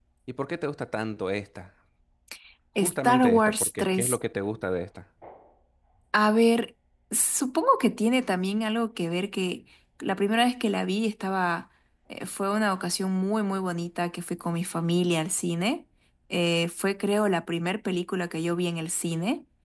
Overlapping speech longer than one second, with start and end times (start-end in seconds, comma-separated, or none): 2.8-4.2